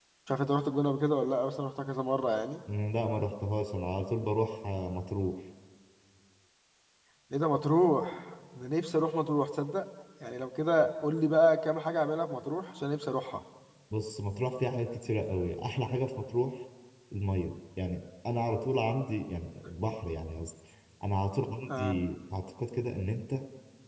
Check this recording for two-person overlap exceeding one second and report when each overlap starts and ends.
none

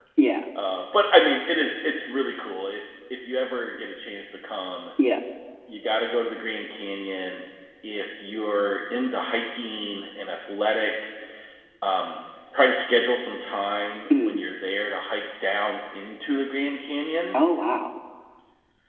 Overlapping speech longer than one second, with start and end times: none

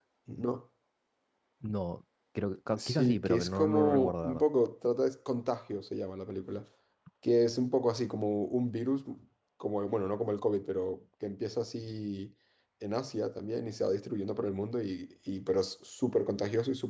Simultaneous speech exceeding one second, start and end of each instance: 2.8-4.4

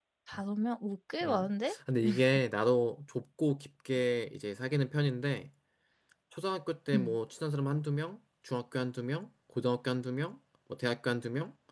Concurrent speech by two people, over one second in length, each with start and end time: none

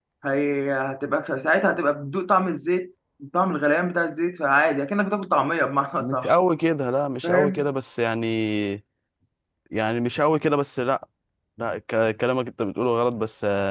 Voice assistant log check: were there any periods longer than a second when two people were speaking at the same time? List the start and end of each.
none

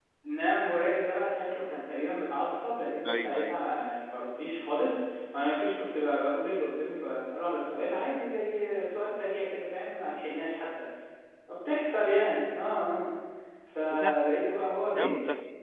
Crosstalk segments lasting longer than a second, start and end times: none

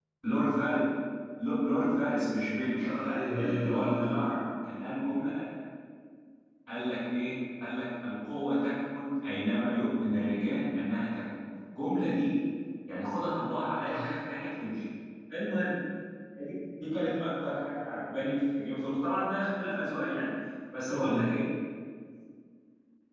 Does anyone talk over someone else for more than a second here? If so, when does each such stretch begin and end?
2.8-4.2

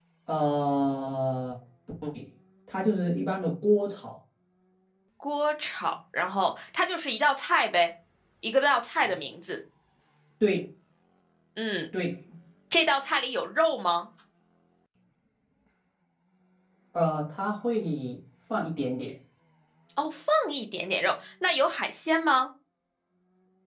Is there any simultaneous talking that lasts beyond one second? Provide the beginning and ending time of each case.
none

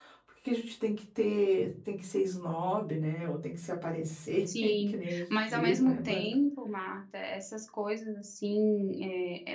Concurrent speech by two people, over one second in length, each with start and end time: 4.6-6.3

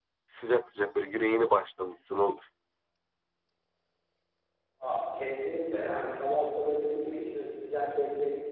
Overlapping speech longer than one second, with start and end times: none

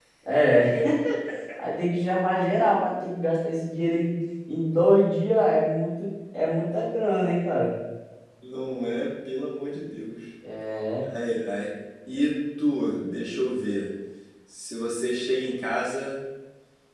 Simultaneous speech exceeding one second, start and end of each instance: none

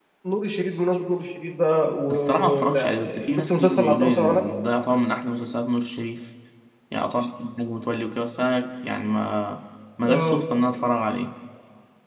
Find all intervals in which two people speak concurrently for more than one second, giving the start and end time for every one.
2.1-4.4

